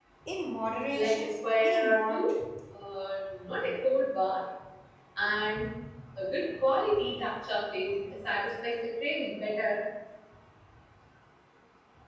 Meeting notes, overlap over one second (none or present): present